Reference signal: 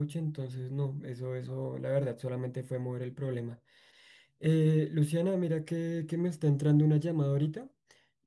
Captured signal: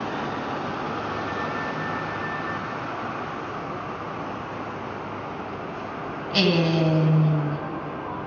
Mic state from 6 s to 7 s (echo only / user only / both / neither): user only